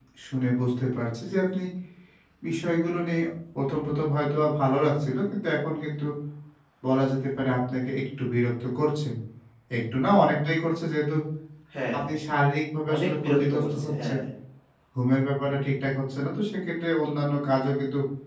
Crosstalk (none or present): present